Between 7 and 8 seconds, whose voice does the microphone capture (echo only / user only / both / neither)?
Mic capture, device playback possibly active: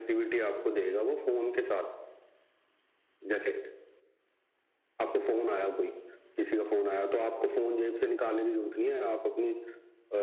echo only